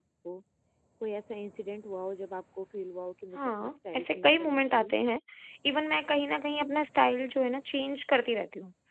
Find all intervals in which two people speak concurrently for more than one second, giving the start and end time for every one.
3.4-4.9

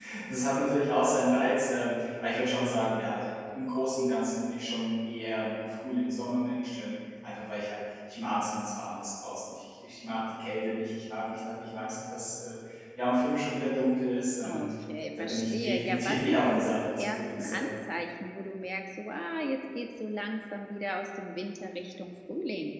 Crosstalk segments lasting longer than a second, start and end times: 15.2-17.7

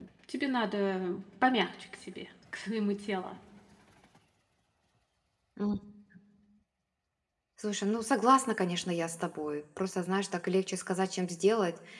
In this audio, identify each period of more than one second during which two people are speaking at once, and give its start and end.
none

